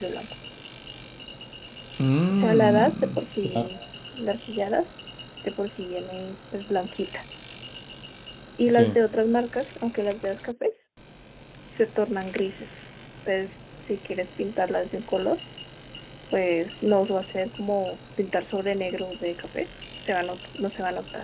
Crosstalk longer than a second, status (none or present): present